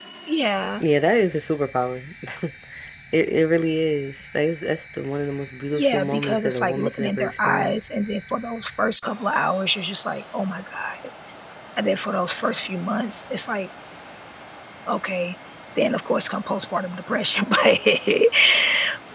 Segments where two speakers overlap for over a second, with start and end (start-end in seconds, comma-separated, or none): 5.7-7.8